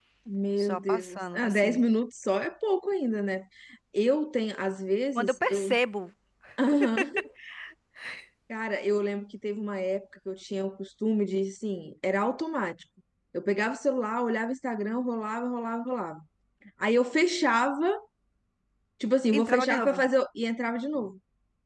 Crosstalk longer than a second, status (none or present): present